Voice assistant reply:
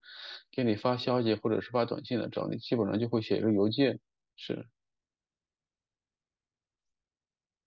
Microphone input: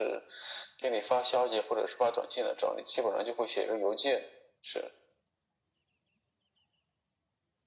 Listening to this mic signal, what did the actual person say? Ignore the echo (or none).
none